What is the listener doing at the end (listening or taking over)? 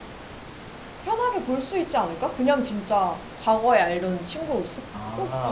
taking over